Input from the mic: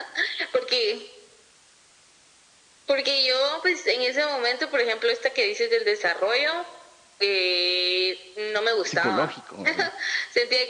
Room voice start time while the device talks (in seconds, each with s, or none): 8.8 s